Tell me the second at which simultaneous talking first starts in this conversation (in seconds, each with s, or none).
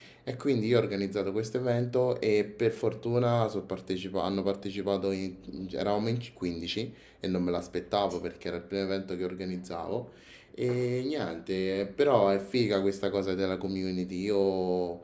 none